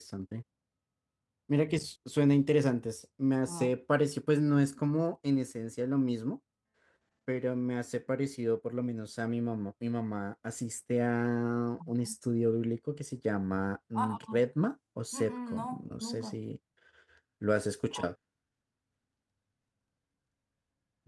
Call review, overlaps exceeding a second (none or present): present